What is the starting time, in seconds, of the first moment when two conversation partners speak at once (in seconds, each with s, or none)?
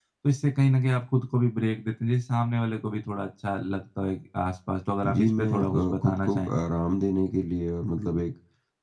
5.0 s